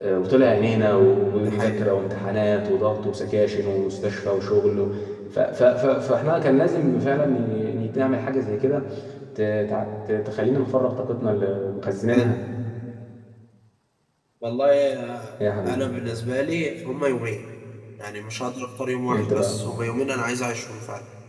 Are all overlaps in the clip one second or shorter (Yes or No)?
Yes